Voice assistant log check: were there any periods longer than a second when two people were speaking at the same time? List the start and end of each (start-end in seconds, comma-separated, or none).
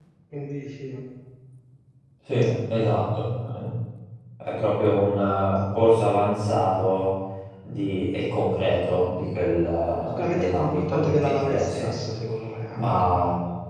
10.2-11.9